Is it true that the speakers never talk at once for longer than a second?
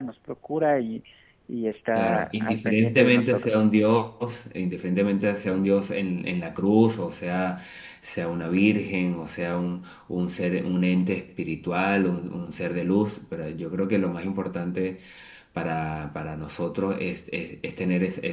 No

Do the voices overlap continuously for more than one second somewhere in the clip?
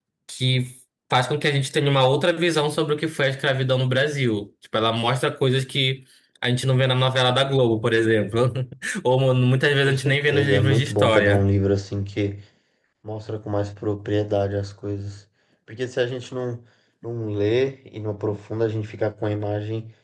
Yes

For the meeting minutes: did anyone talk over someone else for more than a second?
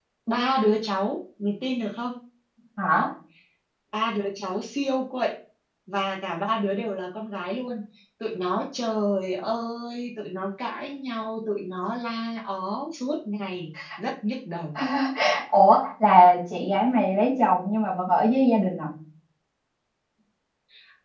No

